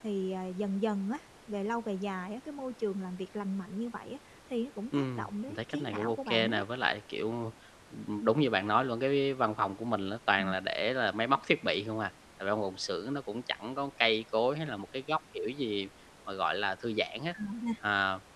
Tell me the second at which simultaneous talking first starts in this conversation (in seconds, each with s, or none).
4.9 s